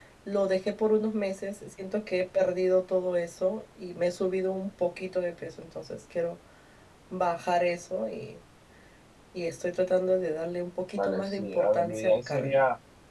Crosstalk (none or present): present